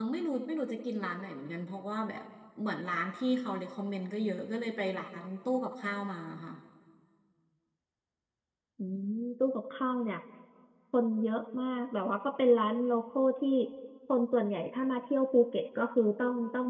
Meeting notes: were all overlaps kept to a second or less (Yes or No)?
Yes